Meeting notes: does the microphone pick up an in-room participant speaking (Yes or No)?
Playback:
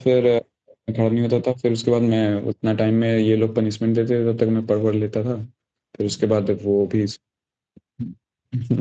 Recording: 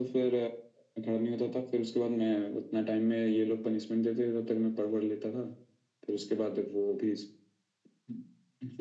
No